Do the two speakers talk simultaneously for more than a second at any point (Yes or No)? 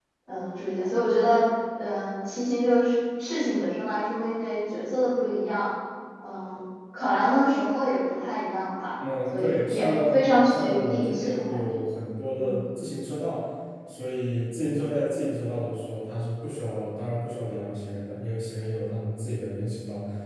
Yes